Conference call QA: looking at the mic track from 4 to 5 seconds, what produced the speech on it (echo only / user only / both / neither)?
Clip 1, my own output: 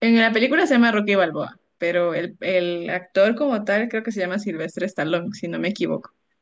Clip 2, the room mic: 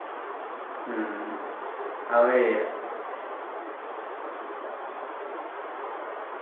neither